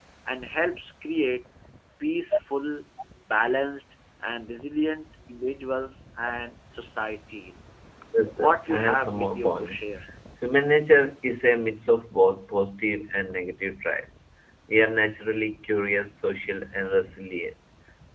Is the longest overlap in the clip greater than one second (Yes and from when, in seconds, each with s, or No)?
Yes, from 8.4 s